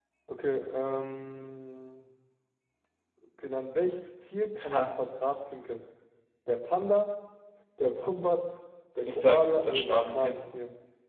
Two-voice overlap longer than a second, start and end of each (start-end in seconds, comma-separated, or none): 9.0-10.4